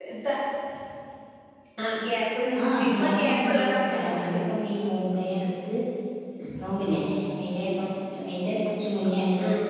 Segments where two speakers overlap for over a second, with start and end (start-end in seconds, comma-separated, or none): 2.9-4.4